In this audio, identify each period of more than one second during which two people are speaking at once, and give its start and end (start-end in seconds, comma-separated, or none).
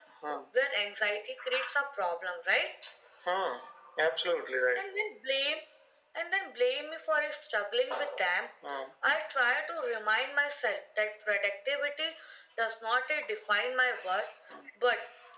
none